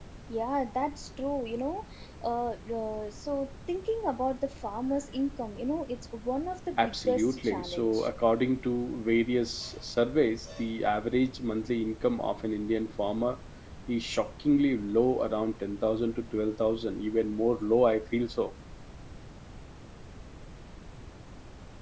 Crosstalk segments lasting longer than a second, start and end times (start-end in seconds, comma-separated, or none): 6.8-8.1